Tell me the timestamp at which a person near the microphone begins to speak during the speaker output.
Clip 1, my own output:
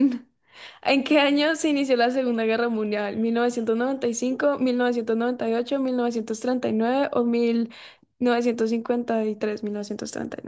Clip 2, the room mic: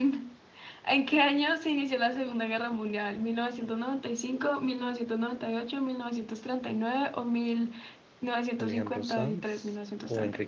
8.5 s

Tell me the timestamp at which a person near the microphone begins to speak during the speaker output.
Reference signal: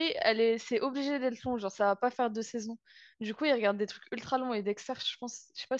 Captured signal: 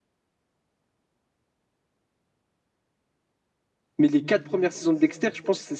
4.0 s

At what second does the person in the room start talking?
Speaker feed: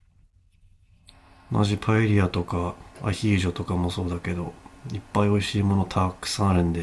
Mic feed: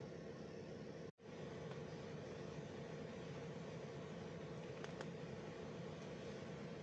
none

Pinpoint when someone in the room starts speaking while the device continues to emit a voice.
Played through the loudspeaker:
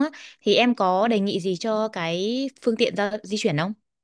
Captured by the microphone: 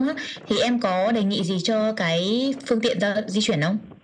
none

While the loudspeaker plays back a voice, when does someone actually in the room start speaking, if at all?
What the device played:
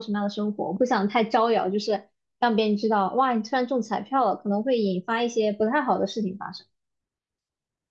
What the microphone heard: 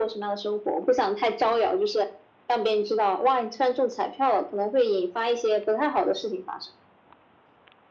none

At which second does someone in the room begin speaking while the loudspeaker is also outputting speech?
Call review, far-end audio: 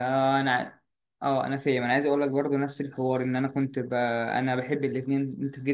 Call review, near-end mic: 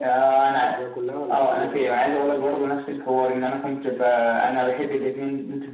0.5 s

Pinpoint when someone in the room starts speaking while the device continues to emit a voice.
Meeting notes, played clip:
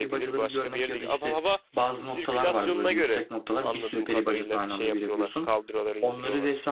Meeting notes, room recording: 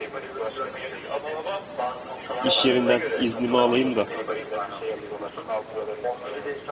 2.4 s

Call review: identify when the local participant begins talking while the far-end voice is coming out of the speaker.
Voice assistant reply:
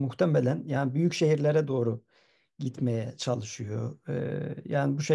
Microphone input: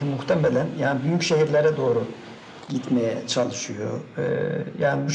none

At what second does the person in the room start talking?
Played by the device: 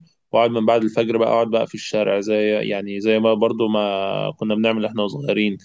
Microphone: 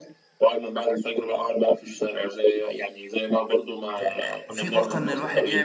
4.0 s

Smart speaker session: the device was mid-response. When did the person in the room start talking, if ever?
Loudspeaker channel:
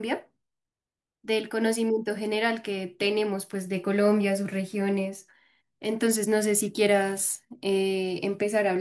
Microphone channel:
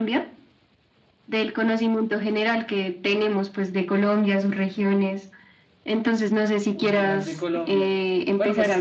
6.7 s

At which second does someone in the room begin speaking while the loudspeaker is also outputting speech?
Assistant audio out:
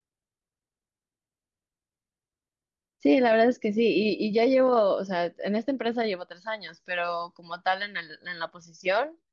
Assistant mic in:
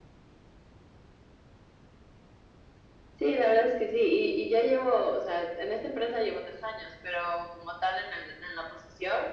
none

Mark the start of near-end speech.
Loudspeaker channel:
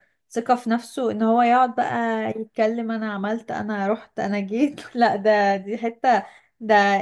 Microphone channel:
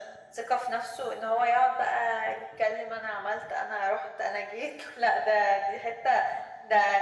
none

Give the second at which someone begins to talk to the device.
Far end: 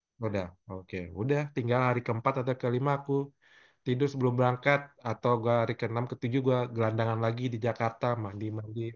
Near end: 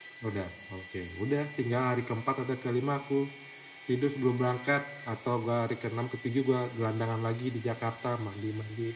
none

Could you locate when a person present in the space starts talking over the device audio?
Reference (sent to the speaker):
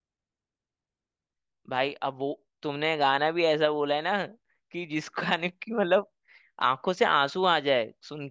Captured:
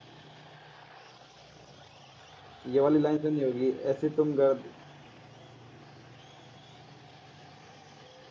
2.7 s

